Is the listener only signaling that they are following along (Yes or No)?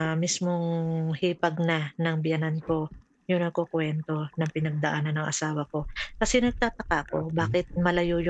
Yes